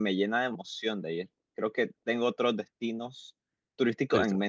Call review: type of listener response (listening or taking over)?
taking over